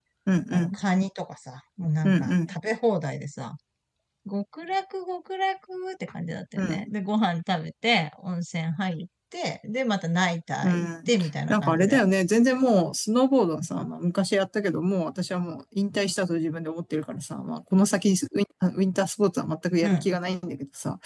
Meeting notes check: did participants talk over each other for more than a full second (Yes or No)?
Yes